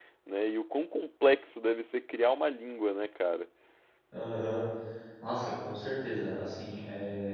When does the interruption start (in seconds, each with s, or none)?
none